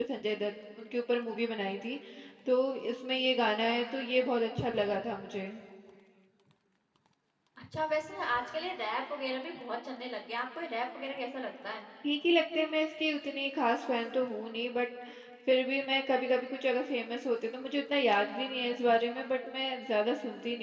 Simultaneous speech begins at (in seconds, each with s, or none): none